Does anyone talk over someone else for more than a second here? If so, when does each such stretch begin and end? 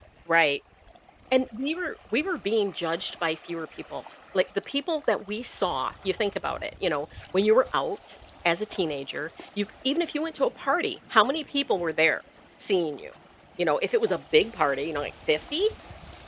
none

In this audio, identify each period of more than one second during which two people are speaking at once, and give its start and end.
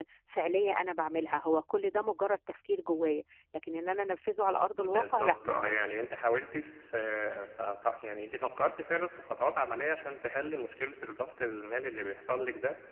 4.8-6.1

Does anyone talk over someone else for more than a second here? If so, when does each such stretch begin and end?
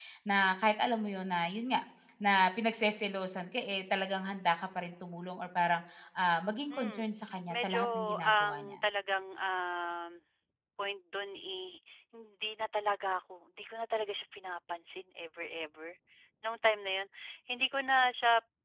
7.5-8.8

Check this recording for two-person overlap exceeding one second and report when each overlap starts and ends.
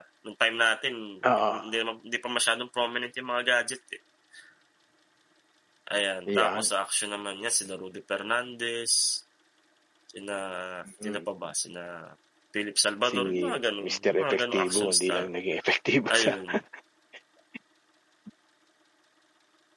13.8-15.3

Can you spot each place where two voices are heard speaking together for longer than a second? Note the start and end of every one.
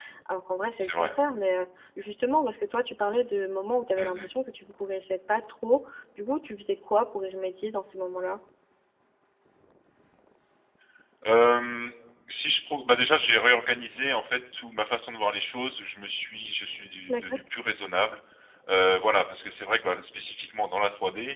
none

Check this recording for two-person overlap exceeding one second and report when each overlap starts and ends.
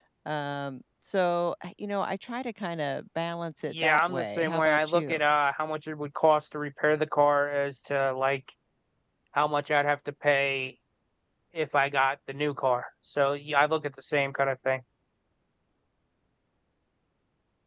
3.7-5.2

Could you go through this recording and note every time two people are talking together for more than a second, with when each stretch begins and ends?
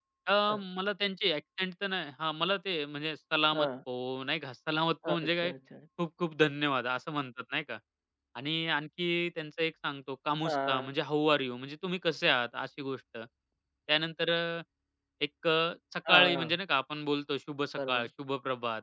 none

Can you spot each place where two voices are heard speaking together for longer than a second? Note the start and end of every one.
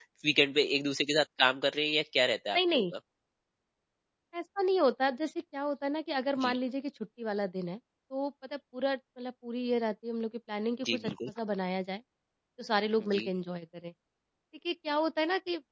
none

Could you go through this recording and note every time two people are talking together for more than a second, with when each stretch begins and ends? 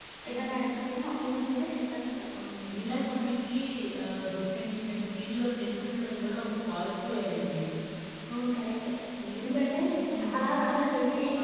none

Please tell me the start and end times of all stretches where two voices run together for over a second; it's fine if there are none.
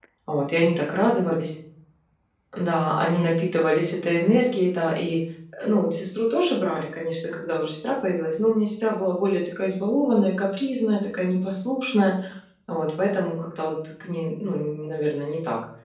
none

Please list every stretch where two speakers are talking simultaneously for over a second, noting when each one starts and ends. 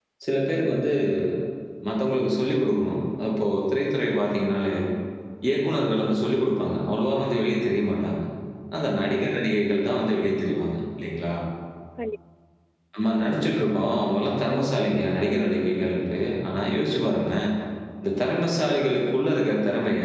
14.5-15.8

